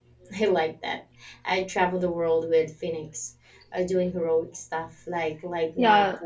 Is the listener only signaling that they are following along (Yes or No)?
Yes